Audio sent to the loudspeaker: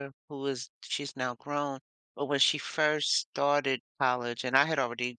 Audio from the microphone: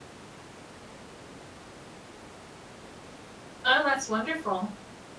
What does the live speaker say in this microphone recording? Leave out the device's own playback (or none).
Oh, that's wonderful.